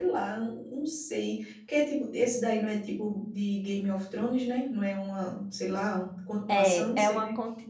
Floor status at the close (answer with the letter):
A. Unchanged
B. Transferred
B